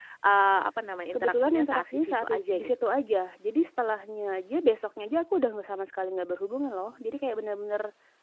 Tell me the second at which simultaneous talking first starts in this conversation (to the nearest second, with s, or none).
1 s